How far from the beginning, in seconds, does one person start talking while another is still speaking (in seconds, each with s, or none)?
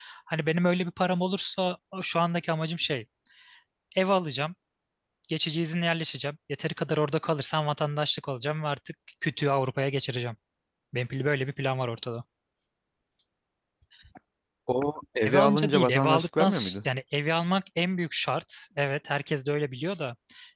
15.2 s